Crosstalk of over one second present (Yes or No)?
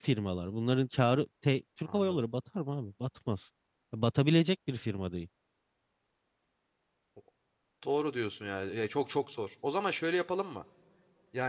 No